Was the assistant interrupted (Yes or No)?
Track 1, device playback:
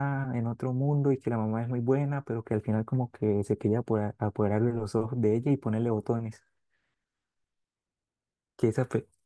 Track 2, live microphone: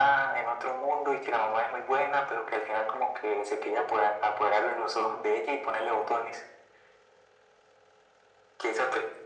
No